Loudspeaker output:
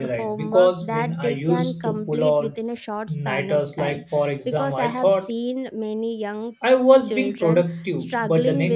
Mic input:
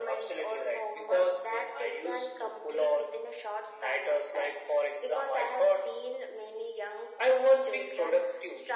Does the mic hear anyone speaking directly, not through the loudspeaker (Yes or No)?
No